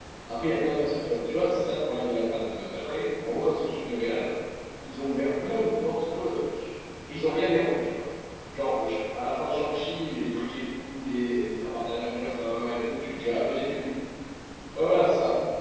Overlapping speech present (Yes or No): No